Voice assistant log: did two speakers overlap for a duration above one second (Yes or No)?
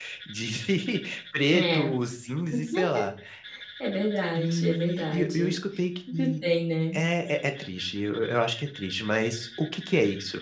Yes